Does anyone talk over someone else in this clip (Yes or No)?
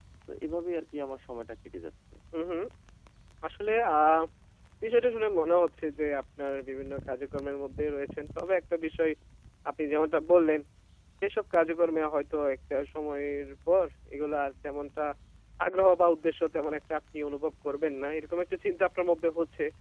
No